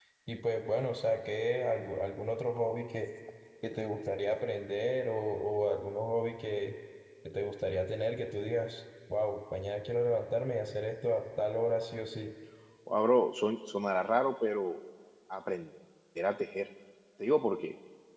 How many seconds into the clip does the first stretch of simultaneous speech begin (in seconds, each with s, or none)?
none